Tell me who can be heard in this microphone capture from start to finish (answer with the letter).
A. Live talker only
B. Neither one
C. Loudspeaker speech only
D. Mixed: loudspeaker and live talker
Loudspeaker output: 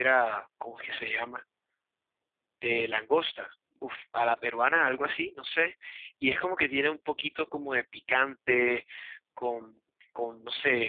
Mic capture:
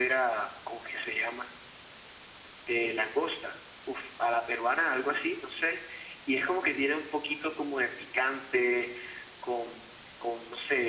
C